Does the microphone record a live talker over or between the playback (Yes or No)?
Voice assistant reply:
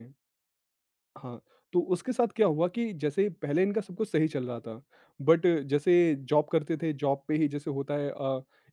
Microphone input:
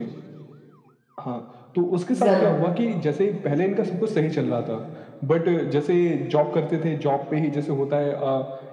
Yes